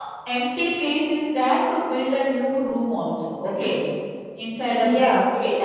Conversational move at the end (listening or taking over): listening